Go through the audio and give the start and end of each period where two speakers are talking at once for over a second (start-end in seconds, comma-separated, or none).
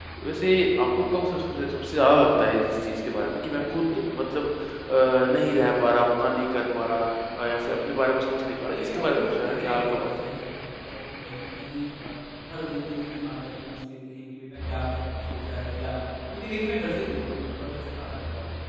8.7-10.1